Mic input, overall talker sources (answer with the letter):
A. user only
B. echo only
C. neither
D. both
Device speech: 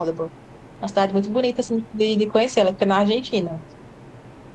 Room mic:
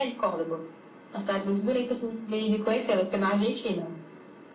B